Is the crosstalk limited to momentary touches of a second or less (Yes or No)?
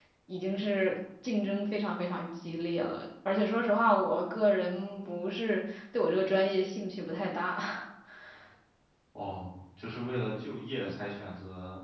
Yes